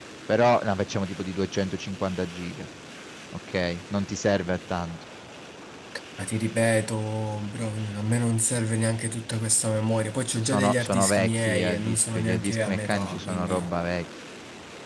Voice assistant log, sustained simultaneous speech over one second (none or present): present